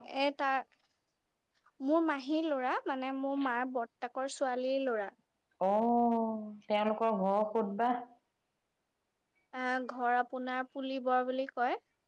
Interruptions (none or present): none